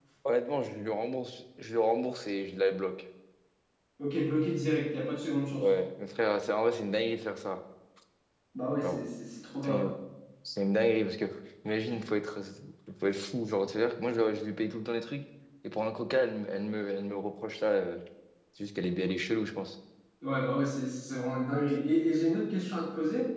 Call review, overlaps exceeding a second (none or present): none